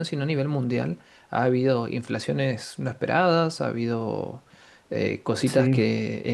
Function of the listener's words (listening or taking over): listening